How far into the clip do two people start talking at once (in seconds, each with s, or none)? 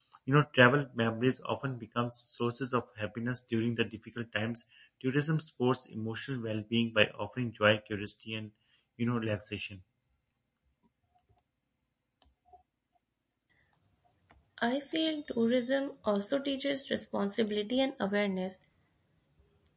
none